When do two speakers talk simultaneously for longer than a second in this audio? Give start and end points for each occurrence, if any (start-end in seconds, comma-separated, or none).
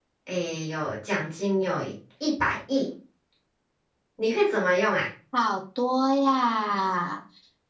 none